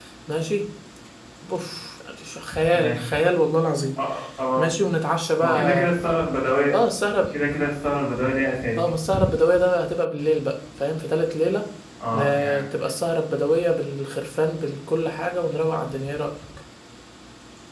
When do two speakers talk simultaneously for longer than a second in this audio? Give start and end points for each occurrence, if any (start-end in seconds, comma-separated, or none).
none